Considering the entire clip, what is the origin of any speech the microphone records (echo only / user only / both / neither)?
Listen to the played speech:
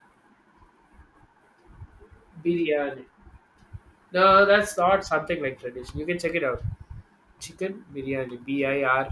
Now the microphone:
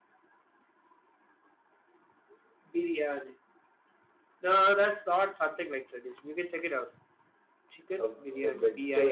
both